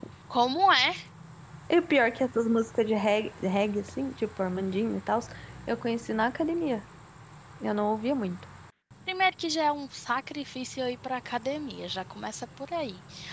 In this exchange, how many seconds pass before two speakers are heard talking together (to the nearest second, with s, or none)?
none